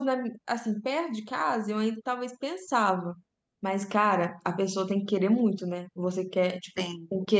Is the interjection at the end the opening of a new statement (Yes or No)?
No